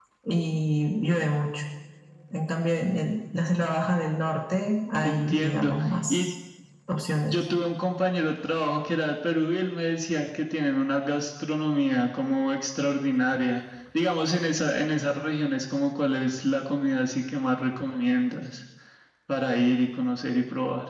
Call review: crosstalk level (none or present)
present